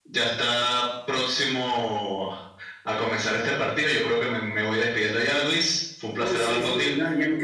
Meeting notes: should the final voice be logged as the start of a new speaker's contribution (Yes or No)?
Yes